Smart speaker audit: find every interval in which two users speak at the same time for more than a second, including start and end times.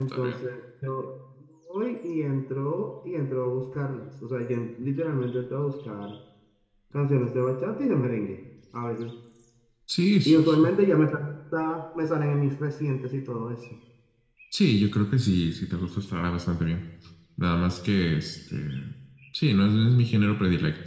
none

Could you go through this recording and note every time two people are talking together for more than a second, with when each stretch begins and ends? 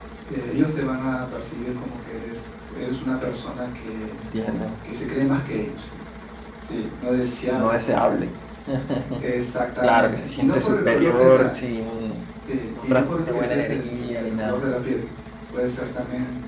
9.8-11.5, 12.8-14.7

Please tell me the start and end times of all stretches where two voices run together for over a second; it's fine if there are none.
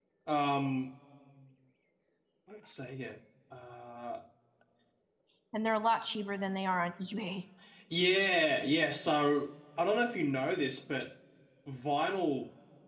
none

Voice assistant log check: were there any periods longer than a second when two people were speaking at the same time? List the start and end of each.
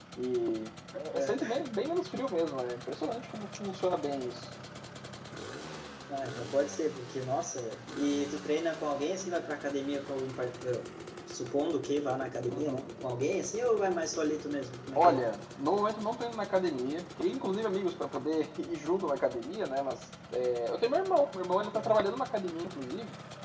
none

